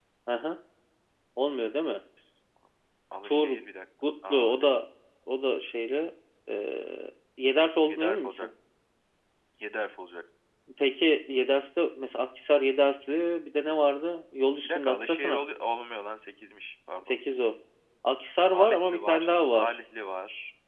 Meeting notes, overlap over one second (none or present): present